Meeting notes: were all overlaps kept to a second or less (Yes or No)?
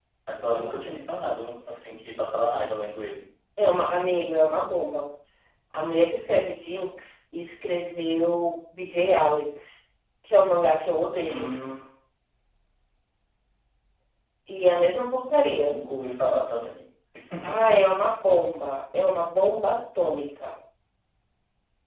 Yes